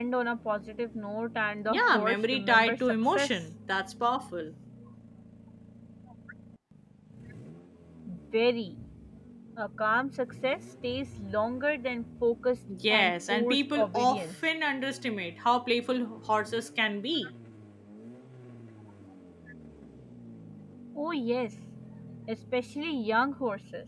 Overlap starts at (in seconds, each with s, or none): 1.7 s